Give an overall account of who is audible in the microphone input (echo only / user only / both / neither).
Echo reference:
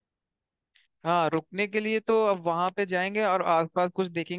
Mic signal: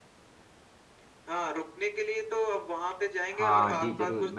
both